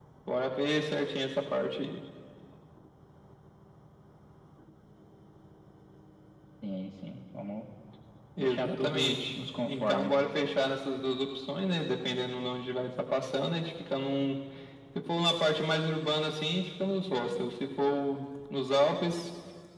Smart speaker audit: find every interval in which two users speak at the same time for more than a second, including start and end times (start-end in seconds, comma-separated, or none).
8.4-10.1